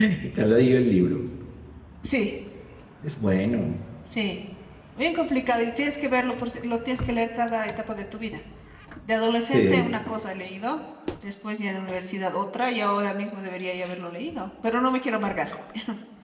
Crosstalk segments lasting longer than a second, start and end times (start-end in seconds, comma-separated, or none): none